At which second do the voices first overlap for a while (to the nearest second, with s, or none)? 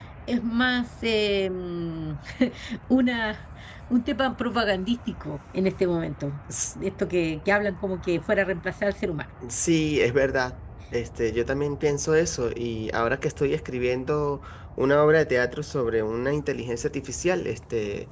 none